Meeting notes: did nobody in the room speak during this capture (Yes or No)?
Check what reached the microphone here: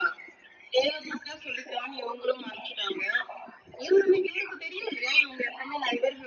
Yes